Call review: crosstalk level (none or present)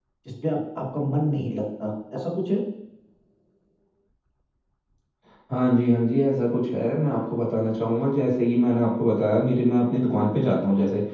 none